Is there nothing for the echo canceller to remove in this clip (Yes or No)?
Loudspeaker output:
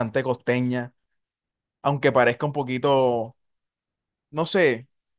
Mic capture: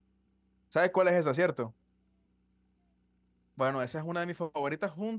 Yes